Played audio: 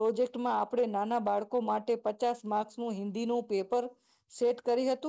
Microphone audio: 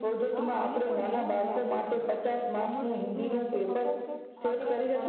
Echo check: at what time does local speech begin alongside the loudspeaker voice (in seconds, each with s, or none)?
0.3 s